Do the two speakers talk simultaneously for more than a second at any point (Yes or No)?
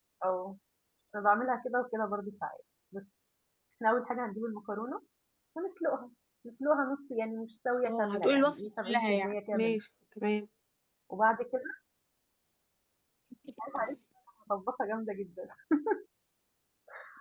Yes